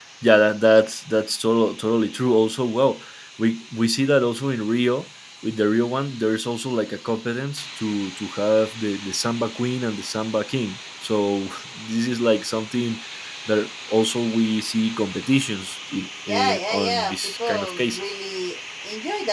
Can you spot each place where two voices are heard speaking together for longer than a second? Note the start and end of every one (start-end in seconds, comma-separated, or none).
16.3-18.1